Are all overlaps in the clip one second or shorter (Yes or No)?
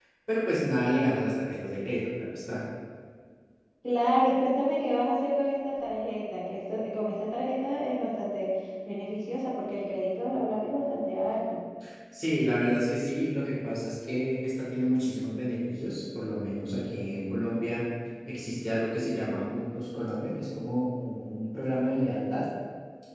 Yes